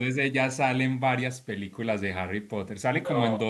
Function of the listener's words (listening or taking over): listening